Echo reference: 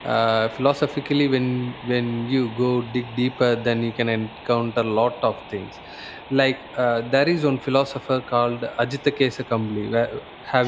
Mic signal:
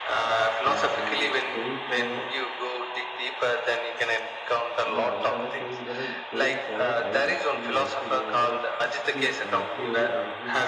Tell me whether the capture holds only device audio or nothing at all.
No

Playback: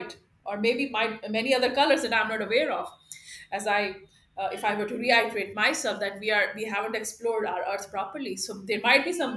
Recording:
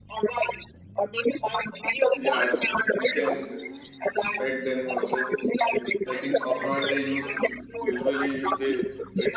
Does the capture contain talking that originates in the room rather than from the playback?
Yes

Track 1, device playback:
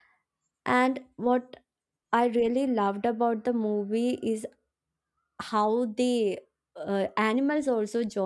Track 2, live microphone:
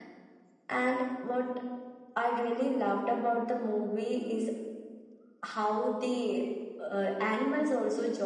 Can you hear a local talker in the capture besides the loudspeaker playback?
No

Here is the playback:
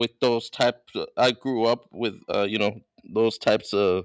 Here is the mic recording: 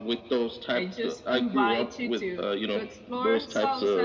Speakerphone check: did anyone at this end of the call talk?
Yes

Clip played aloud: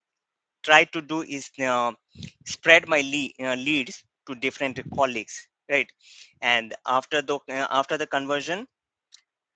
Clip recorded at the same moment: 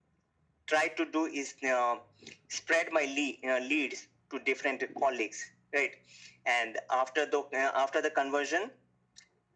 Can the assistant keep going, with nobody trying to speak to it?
Yes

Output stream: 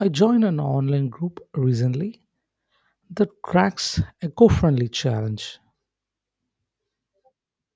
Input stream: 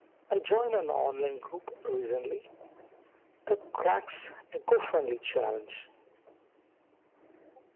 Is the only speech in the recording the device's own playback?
Yes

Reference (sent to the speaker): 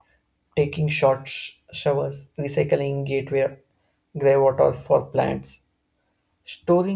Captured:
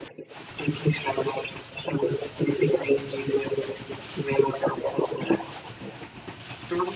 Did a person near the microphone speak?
No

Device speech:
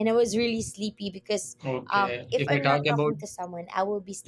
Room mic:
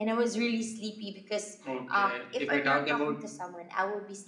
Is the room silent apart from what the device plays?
Yes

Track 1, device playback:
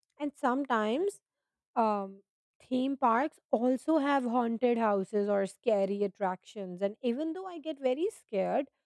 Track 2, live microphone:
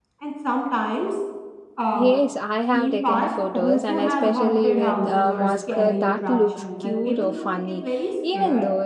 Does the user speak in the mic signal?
Yes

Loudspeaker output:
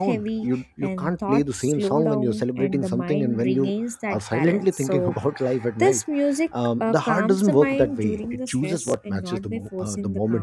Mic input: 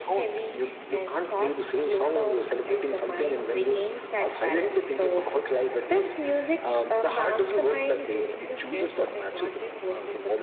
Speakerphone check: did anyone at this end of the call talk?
No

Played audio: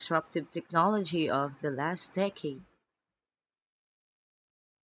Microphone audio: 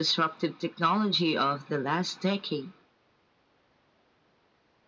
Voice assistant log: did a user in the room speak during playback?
No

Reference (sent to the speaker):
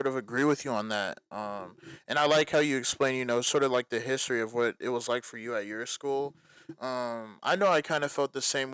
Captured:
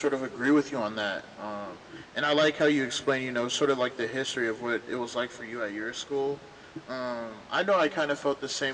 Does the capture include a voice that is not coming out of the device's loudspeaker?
No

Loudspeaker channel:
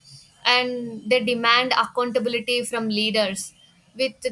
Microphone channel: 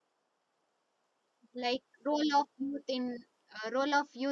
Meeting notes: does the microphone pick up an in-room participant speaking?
Yes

